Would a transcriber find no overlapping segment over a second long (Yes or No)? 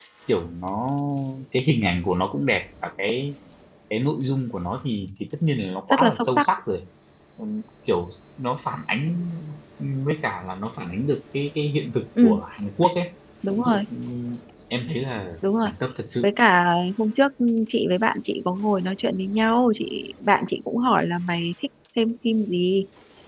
Yes